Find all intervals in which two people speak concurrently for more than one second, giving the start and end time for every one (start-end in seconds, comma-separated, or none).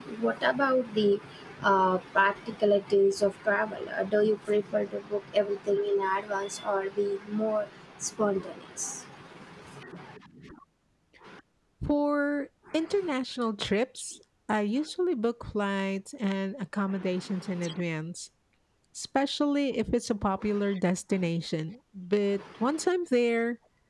none